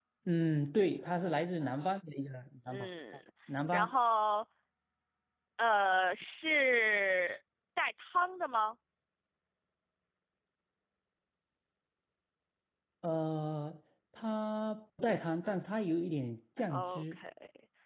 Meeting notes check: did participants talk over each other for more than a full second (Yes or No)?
No